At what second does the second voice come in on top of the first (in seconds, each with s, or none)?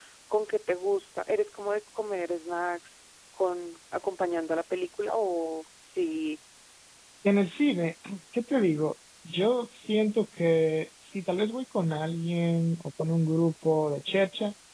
none